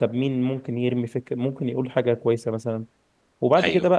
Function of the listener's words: listening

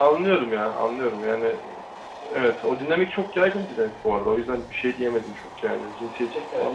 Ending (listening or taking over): taking over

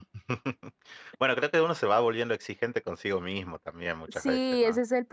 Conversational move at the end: taking over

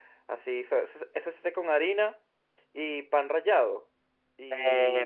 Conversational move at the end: taking over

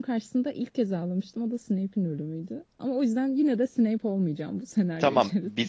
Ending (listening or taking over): taking over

